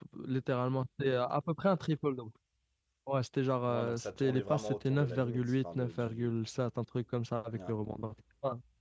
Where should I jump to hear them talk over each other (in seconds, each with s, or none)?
3.7 s